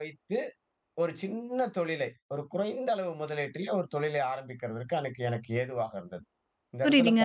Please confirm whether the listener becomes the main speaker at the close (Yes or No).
Yes